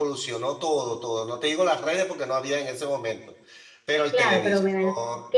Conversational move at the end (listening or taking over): taking over